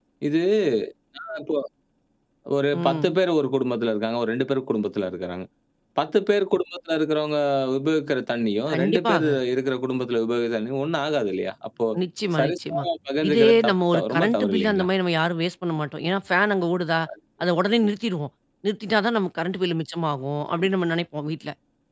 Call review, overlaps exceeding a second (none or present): present